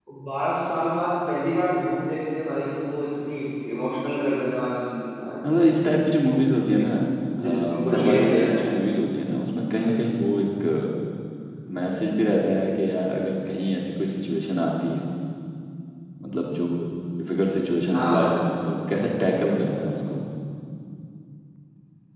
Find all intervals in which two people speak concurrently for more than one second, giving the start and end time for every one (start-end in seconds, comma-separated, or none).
7.4-8.7